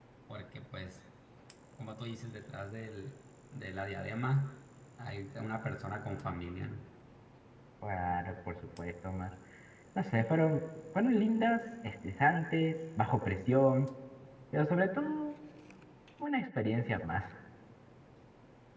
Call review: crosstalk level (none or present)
none